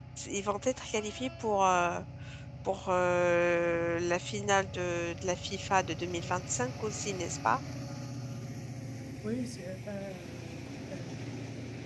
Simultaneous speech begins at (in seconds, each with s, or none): none